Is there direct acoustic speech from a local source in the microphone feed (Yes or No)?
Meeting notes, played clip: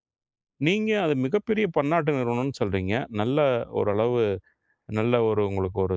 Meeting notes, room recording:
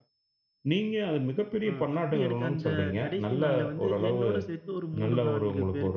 Yes